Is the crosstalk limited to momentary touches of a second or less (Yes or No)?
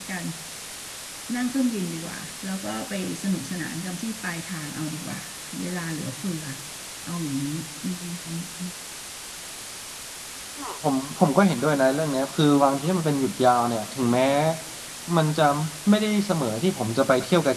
Yes